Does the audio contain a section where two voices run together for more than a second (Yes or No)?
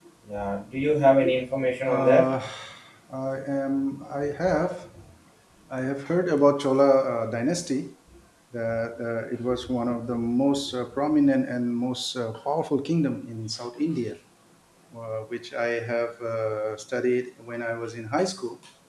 No